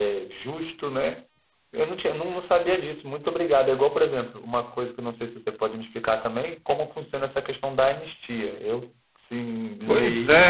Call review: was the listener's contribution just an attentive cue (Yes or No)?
No